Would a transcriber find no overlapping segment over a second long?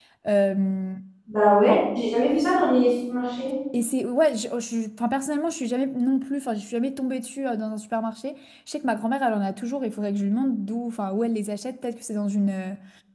Yes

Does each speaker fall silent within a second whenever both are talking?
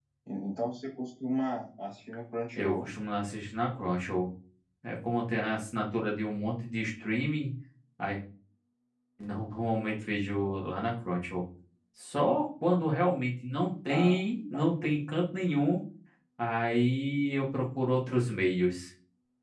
Yes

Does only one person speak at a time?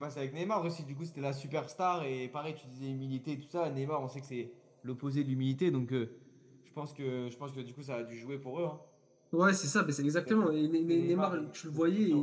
No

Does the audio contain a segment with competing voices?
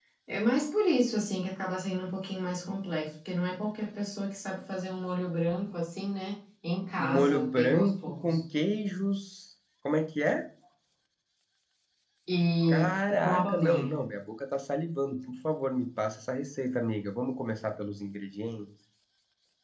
Yes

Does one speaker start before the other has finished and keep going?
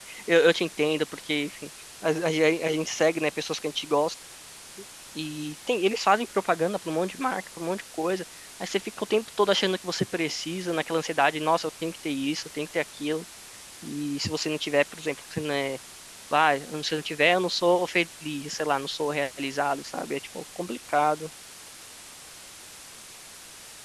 No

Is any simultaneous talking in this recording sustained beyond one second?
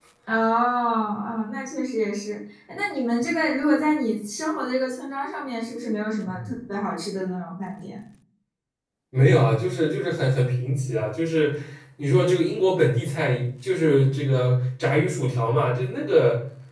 No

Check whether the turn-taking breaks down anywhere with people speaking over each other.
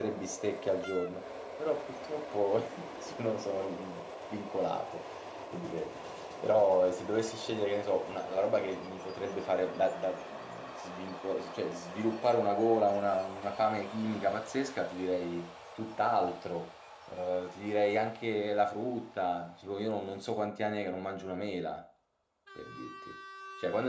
No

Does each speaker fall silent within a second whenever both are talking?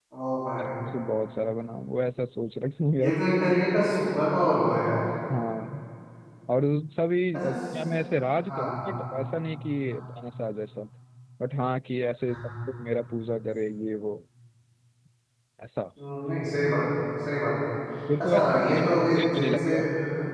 No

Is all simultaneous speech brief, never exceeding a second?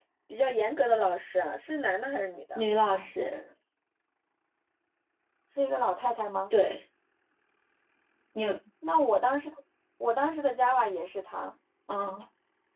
Yes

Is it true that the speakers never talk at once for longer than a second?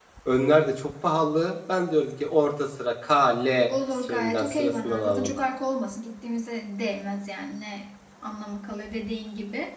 No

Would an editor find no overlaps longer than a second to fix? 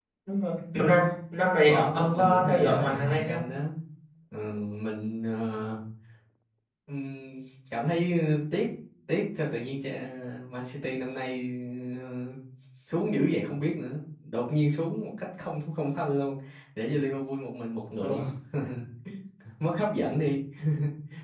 No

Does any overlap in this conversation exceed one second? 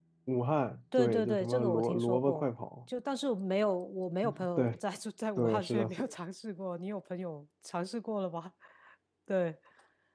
Yes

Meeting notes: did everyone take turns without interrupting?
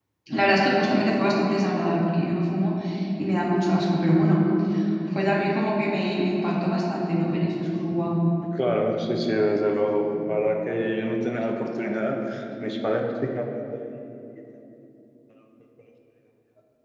Yes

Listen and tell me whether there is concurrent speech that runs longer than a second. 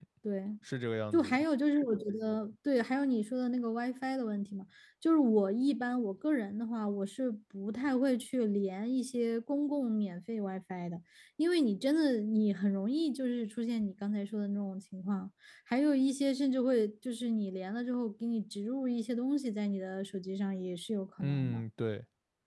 No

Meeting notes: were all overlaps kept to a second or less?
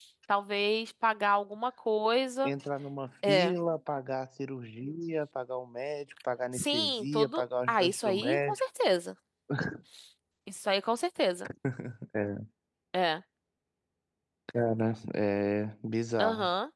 No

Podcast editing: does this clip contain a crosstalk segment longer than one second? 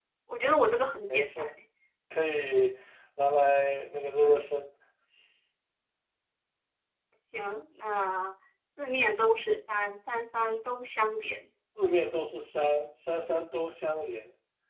No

